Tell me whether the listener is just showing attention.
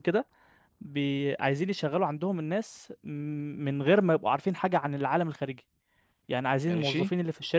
Yes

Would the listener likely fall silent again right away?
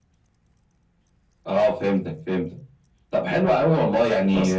Yes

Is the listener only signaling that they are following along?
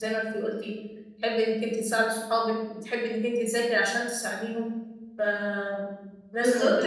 No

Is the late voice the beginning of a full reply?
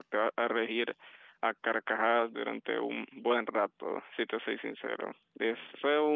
No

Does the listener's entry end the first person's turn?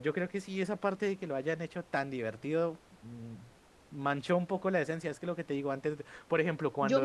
Yes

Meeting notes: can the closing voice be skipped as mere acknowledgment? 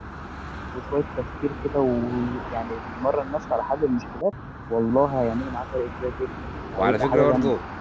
No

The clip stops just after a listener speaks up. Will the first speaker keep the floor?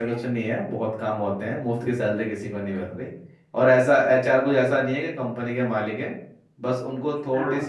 Yes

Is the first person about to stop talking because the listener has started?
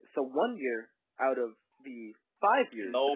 Yes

